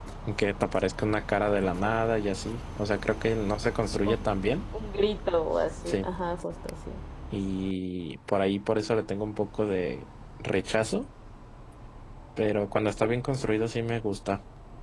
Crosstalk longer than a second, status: none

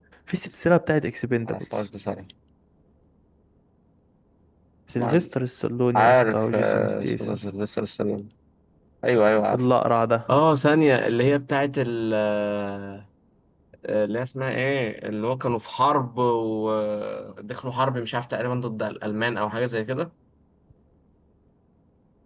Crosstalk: present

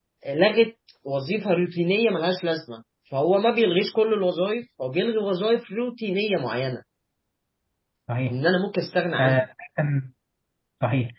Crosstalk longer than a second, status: none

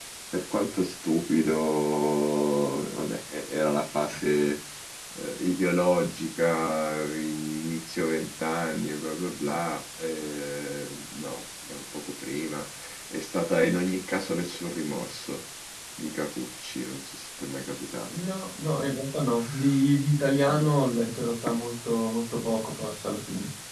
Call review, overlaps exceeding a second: none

